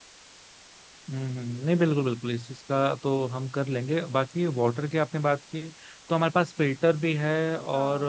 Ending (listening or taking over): listening